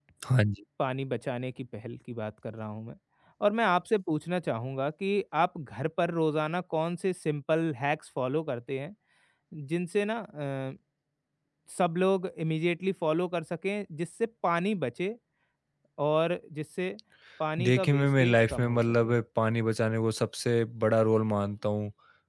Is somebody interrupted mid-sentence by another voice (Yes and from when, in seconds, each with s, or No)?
Yes, from 17.6 s